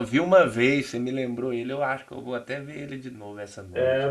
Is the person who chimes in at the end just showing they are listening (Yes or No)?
No